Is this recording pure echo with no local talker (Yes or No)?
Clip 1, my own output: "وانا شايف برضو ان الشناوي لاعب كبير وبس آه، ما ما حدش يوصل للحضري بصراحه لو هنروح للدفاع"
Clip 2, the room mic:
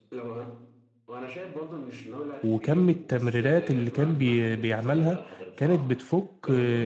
No